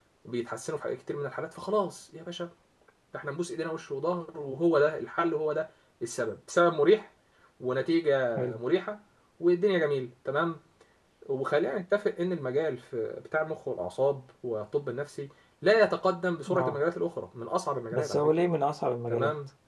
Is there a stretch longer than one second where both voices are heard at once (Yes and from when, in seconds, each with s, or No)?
No